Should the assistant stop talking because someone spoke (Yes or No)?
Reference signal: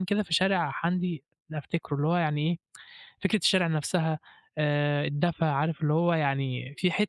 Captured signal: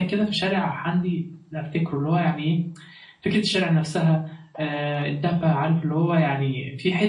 No